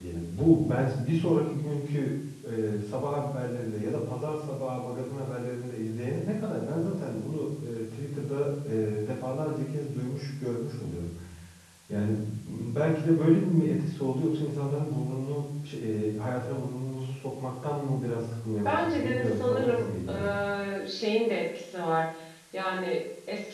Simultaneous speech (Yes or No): Yes